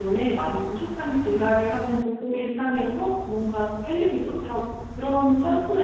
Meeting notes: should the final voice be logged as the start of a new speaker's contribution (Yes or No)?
No